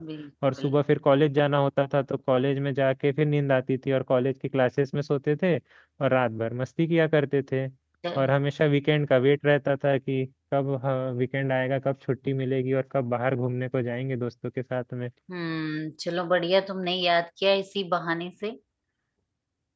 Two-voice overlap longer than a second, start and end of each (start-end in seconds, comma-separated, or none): none